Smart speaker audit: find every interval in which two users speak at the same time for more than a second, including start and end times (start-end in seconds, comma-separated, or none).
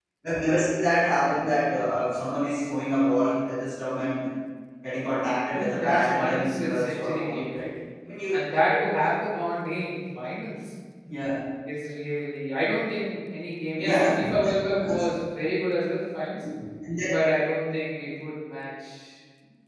5.5-7.4, 13.8-15.0